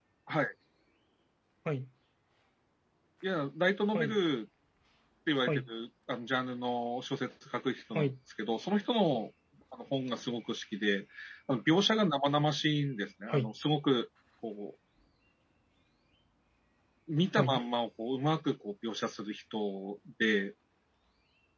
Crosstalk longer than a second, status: none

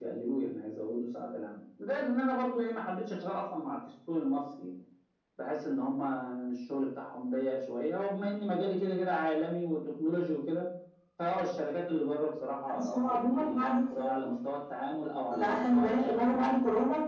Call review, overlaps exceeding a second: present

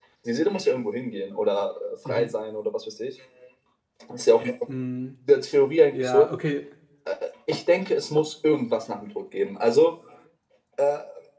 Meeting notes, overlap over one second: none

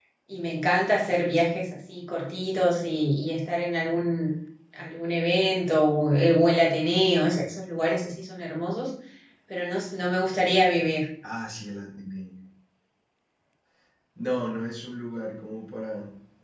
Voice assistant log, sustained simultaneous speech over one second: none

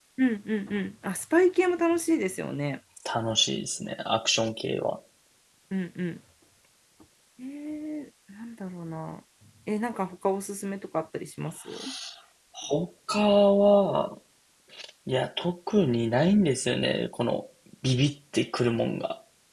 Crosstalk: none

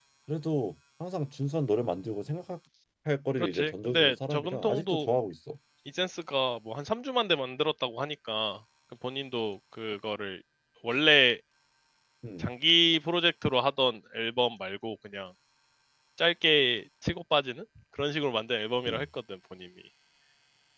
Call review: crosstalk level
present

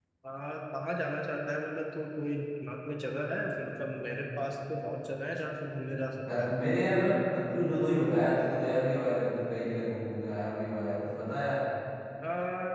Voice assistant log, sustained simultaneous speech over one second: none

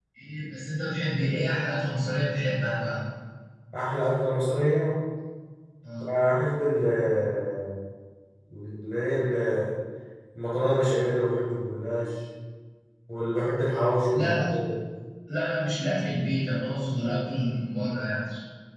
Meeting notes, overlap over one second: none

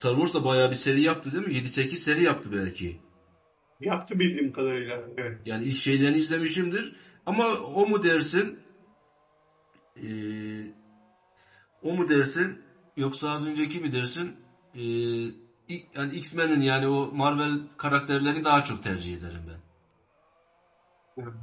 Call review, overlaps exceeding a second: none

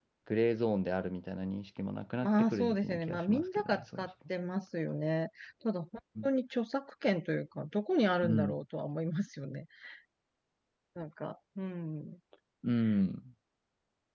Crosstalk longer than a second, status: present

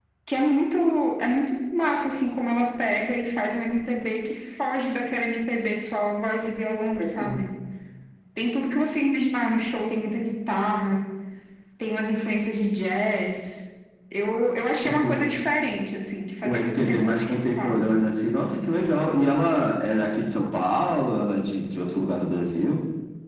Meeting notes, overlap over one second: present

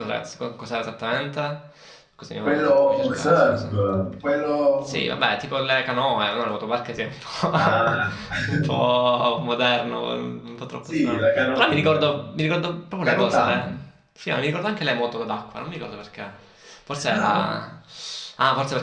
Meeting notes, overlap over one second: present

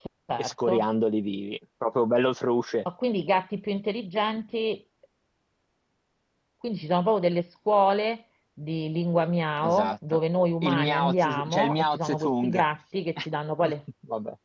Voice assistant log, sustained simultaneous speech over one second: present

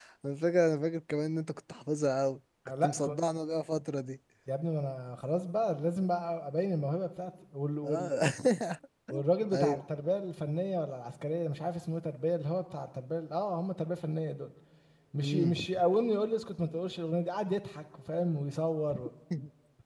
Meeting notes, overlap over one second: none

